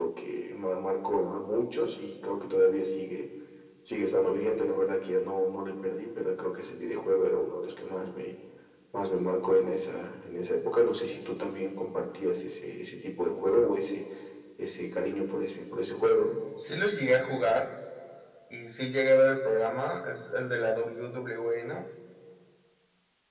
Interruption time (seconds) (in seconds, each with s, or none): none